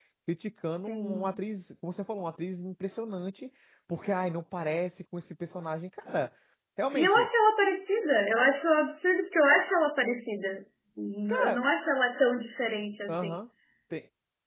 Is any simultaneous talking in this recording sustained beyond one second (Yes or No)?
No